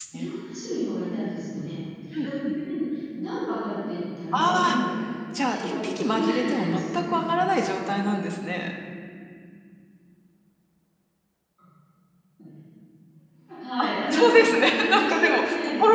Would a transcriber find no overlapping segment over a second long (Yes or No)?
No